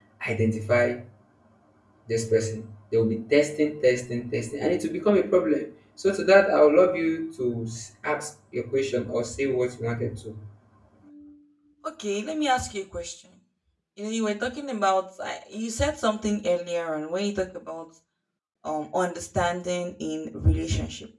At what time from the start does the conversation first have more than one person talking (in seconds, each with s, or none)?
none